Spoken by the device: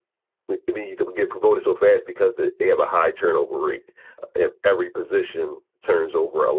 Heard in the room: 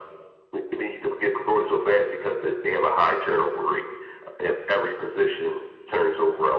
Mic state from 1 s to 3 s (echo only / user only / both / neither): echo only